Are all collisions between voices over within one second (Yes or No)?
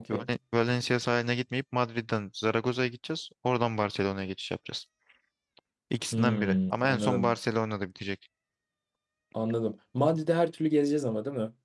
No